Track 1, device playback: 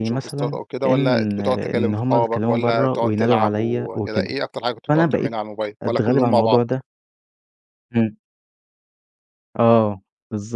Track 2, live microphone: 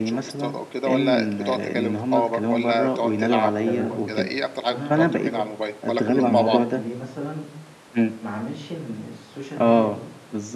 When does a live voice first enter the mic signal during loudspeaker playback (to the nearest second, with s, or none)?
4 s